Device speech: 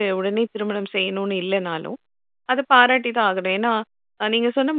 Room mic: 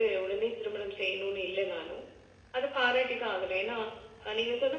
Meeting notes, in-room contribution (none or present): none